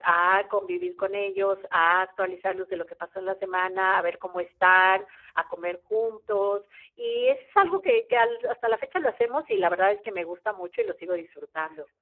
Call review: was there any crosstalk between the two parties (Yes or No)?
No